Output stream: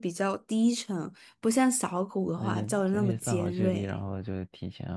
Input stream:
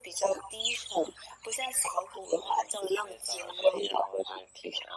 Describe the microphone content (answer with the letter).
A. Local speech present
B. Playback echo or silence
B